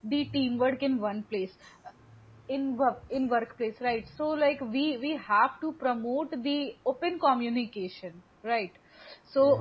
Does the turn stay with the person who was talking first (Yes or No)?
Yes